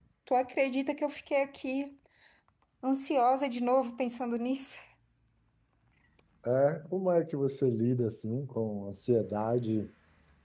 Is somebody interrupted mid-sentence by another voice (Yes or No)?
No